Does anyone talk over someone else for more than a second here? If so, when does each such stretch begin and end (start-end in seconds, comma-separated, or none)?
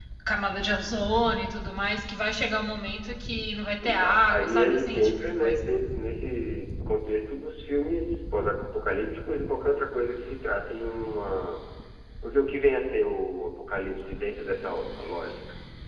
3.9-5.6